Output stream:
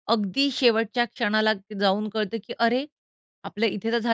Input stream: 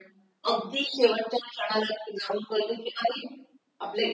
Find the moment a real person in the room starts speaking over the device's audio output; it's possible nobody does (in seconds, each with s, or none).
none